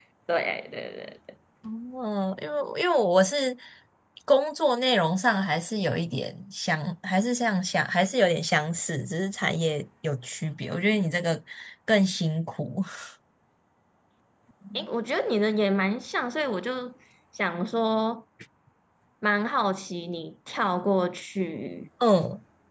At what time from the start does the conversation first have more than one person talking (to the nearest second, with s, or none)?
none